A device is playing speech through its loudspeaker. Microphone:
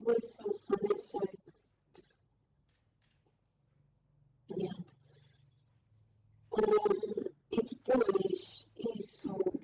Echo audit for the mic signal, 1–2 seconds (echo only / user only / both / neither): echo only